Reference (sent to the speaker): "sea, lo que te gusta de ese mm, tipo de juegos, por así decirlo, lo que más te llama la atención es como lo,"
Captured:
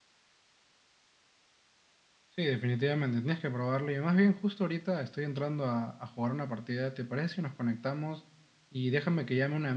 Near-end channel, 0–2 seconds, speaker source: neither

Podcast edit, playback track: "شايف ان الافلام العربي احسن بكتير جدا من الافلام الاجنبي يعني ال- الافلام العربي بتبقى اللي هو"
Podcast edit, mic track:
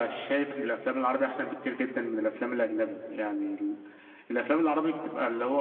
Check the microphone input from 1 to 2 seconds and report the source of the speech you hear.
echo only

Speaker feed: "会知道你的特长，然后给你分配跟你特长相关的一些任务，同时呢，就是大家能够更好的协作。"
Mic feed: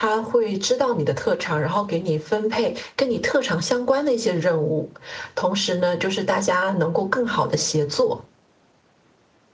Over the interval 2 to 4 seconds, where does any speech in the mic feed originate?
echo only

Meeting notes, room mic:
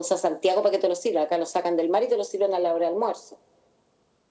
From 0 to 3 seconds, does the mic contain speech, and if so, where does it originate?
echo only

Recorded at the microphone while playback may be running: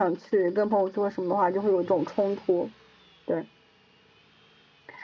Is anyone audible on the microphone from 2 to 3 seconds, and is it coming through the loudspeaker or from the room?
echo only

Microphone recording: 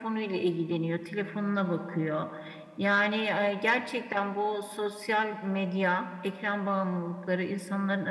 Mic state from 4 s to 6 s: echo only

